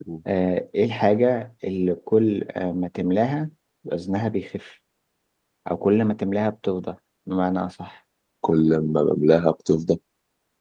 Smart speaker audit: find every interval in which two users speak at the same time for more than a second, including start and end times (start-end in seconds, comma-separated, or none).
none